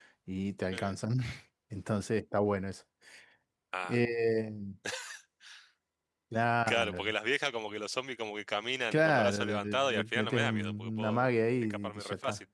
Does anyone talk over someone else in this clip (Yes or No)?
Yes